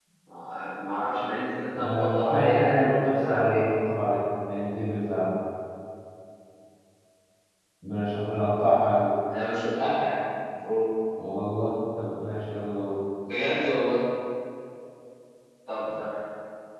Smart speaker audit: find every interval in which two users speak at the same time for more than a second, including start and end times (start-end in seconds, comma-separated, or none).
1.7-3.6